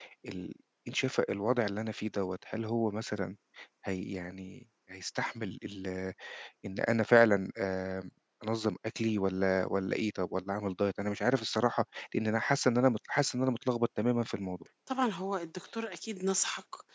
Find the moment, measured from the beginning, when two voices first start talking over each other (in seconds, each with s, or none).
none